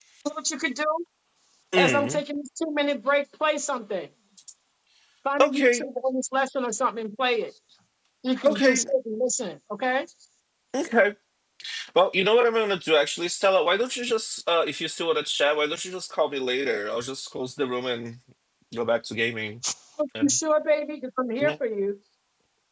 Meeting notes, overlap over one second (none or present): none